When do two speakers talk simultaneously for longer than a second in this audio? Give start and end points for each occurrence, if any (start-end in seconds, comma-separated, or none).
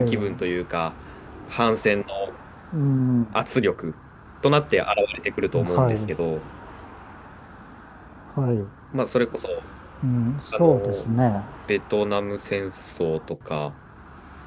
none